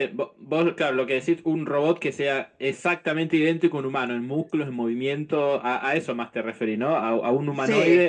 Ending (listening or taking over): listening